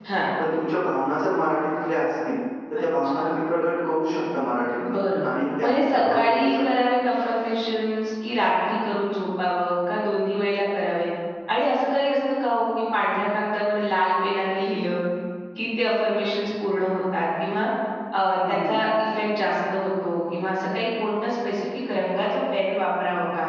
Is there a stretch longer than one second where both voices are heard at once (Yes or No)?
Yes